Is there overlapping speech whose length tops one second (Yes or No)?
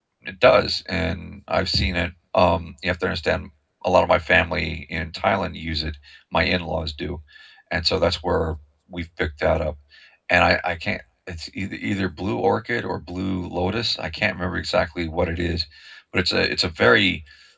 No